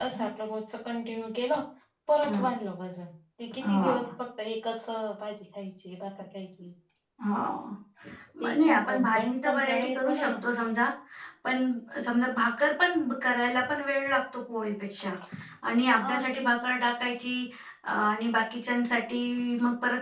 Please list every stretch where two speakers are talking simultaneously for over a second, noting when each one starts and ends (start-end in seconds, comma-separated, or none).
8.4-10.3